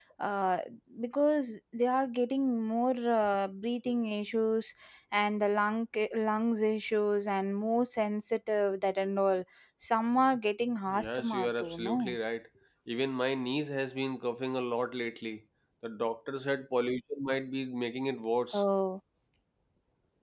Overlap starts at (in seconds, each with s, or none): 10.9 s